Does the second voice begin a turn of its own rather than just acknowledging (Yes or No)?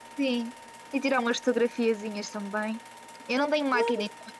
No